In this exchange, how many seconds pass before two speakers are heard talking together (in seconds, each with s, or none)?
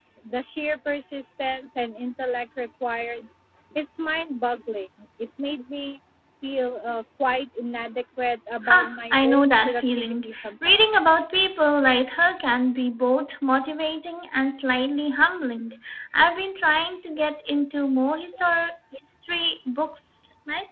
8.6 s